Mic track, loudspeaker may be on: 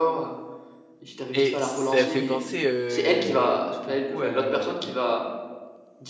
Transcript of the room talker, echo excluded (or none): et ça fait penser, heu, beaucoup à des